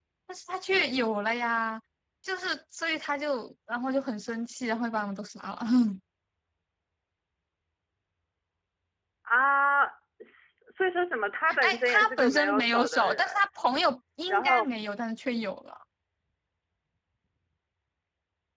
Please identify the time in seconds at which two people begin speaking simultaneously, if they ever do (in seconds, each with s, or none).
11.6 s